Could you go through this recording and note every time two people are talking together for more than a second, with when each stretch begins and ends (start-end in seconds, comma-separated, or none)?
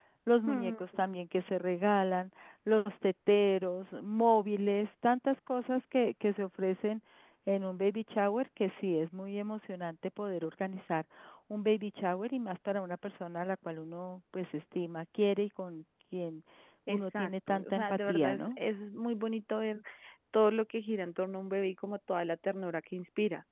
16.9-18.6